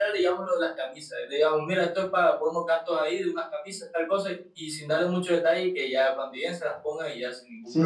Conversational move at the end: taking over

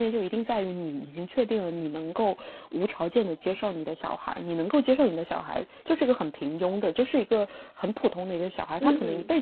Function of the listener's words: listening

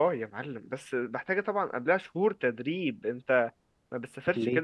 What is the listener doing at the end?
listening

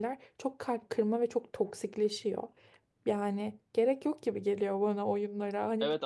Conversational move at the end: taking over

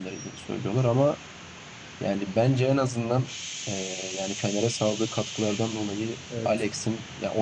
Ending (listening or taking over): listening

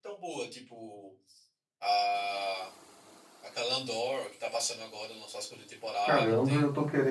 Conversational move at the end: taking over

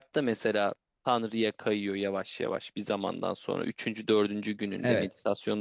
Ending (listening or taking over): listening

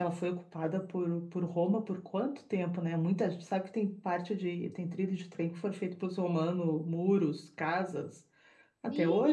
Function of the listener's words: taking over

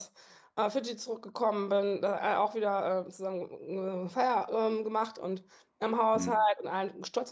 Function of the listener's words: listening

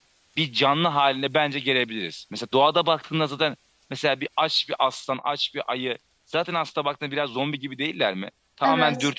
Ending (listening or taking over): listening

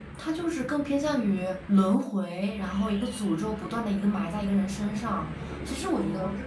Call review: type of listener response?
listening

